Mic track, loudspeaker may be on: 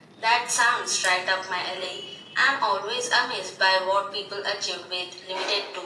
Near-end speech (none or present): none